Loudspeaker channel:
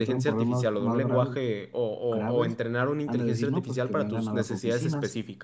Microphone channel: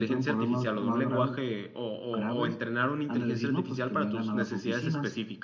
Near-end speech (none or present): none